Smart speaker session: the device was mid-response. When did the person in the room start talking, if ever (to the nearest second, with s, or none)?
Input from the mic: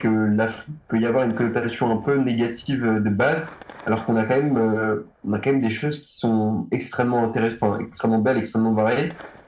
none